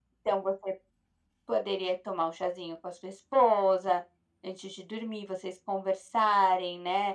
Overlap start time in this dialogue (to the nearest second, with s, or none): none